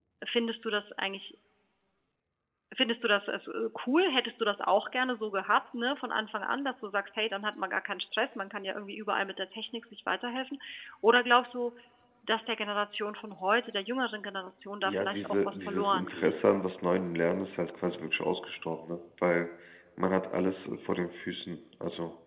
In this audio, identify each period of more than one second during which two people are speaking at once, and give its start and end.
14.8-16.3

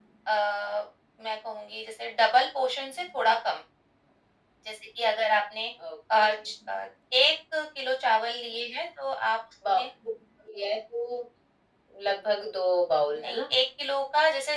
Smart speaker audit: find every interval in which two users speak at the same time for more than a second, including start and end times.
none

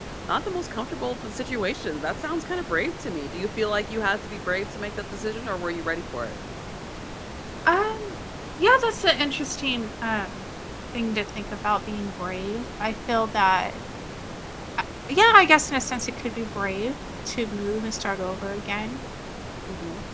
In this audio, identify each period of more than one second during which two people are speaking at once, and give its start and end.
none

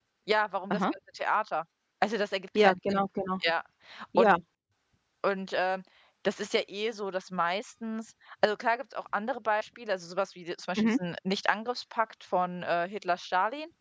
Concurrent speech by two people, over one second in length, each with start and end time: none

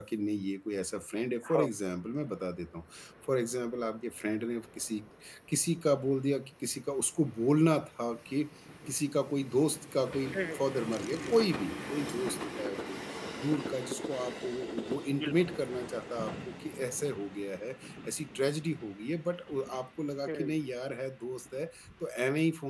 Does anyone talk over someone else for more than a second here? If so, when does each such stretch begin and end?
none

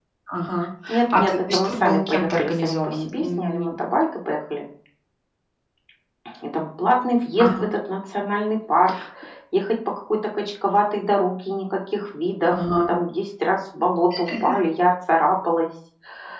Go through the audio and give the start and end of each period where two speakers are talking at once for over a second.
1.2-3.7

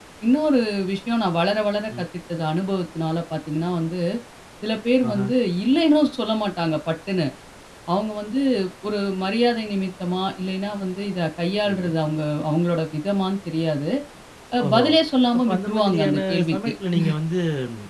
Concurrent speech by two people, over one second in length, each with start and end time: 15.5-16.7

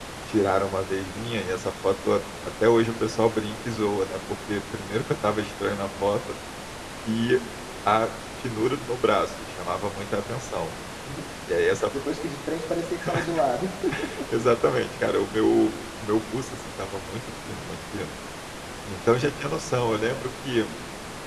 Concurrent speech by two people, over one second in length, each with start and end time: none

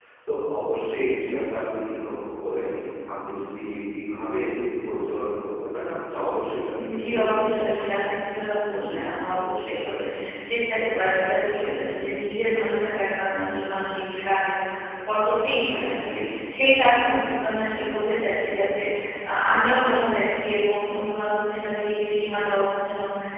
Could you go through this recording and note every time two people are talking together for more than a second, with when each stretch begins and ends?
6.8-8.2

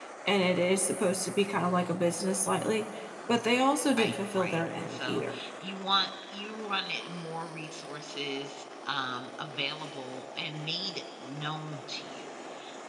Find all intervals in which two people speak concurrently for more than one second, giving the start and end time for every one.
4.0-5.2

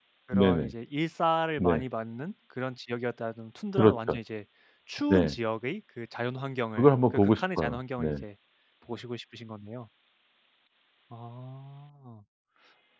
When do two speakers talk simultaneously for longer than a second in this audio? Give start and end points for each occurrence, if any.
6.8-8.1

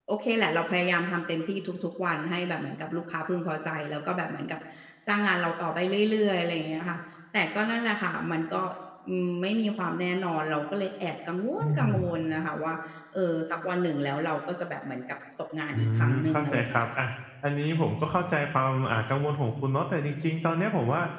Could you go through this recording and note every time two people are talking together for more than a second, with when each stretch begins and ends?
15.7-17.1

